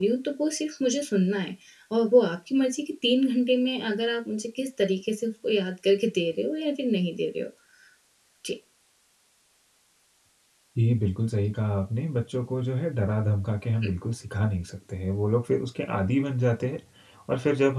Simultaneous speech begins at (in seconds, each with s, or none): none